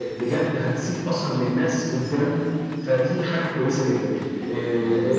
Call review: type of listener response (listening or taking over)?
listening